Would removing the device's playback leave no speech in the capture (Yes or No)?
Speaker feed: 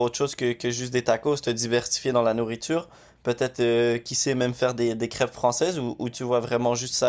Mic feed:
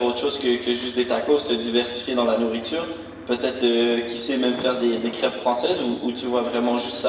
Yes